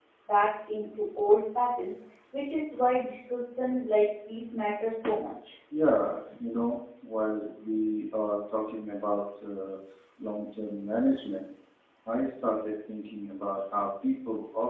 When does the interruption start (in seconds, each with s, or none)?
none